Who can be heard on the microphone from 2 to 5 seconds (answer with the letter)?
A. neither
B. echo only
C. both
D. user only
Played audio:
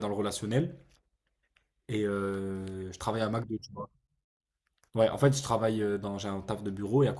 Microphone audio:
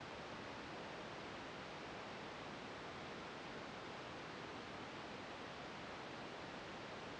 A